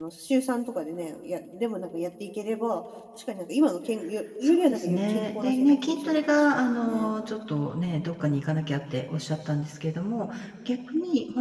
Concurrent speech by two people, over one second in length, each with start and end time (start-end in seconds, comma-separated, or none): 4.4-7.1